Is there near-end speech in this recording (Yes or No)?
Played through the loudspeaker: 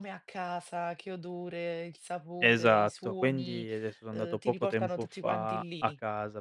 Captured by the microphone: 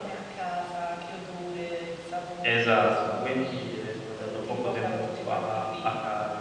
No